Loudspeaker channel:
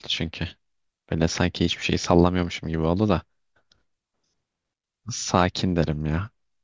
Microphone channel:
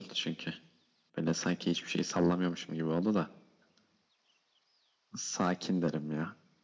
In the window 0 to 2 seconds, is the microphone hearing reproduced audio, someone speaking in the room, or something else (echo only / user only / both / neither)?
echo only